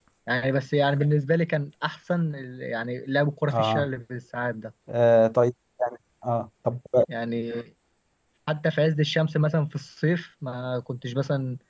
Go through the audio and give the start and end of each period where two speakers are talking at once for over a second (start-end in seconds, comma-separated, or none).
none